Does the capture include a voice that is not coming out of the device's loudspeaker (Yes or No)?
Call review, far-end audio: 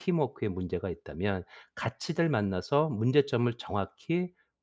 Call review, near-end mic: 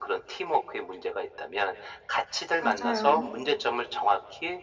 Yes